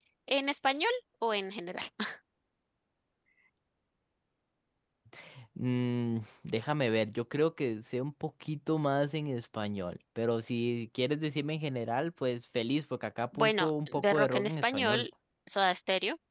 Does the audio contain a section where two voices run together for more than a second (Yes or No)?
Yes